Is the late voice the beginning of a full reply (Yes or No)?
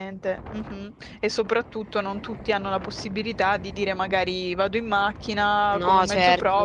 No